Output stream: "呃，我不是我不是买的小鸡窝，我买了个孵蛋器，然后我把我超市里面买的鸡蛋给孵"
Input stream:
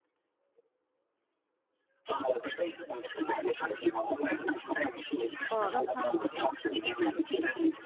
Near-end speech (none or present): present